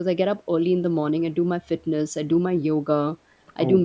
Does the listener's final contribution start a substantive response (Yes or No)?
No